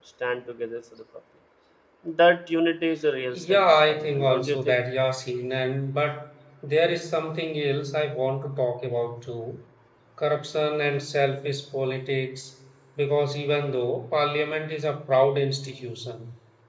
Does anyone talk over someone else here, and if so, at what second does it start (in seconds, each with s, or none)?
3.3 s